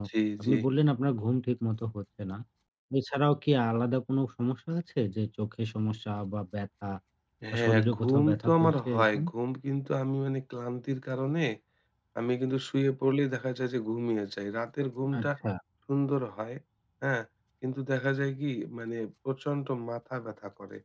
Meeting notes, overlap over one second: present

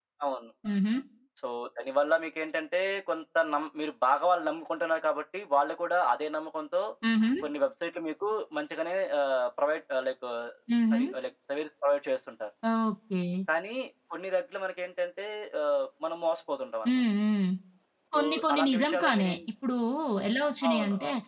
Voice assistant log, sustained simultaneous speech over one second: present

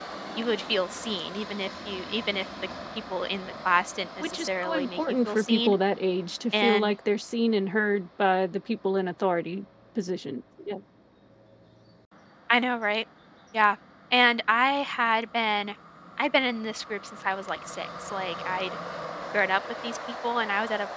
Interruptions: present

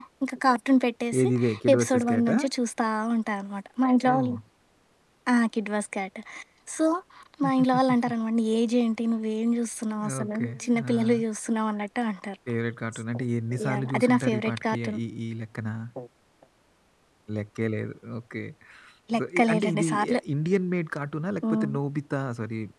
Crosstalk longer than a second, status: present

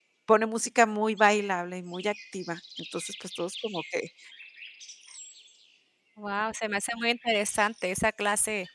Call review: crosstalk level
none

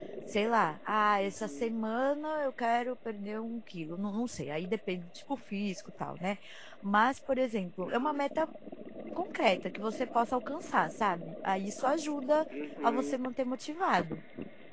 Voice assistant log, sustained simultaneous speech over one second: none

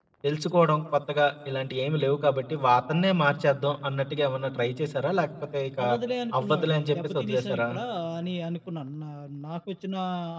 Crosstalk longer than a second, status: present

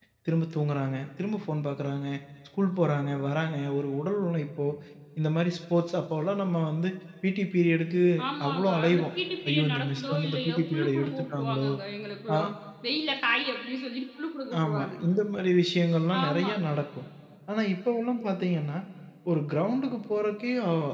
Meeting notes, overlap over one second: present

